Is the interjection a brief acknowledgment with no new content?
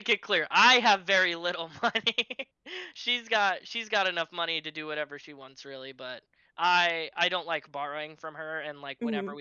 Yes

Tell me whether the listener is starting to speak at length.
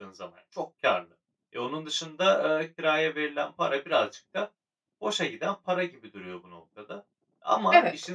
No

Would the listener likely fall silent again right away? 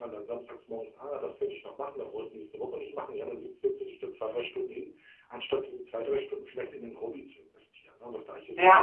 No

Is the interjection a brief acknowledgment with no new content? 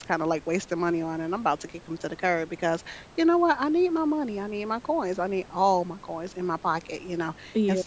Yes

